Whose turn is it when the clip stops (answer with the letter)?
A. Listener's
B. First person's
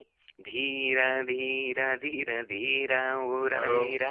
B